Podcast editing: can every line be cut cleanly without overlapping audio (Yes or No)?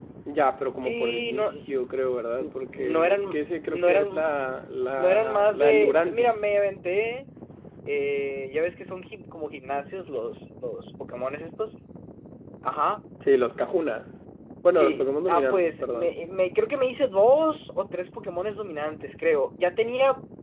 No